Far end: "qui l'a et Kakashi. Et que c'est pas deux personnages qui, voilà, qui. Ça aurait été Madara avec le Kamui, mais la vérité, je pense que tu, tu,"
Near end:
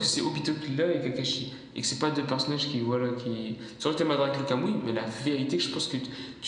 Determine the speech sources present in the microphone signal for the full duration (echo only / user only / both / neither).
echo only